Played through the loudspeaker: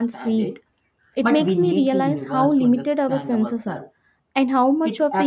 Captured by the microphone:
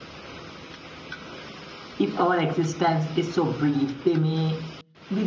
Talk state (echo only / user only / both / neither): user only